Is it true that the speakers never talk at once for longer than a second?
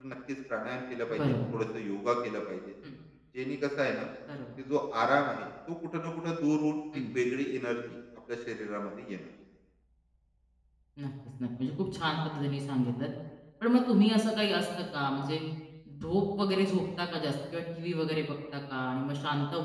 Yes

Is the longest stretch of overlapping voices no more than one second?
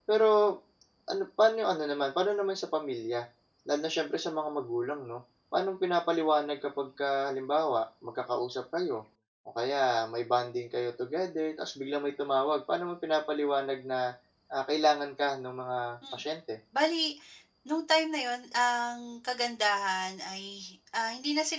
Yes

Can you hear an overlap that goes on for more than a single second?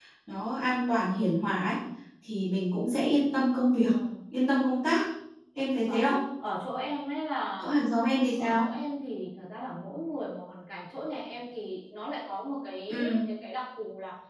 No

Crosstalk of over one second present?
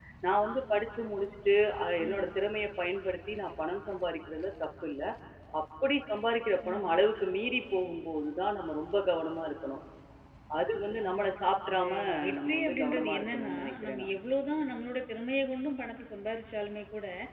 Yes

